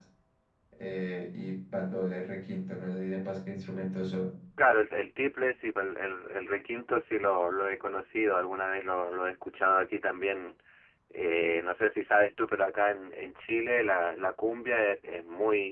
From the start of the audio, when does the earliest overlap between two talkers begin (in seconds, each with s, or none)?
none